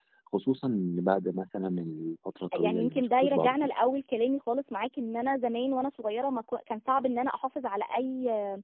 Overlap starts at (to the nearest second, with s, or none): 3 s